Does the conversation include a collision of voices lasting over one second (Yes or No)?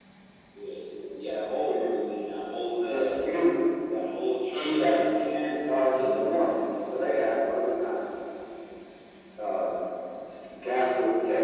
No